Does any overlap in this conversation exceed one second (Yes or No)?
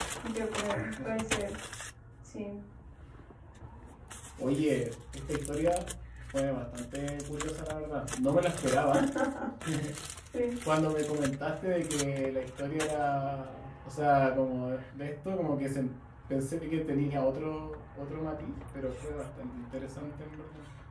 No